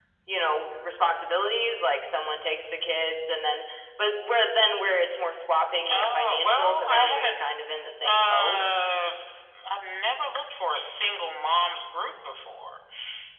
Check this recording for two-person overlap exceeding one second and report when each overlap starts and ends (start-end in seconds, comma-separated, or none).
5.9-7.4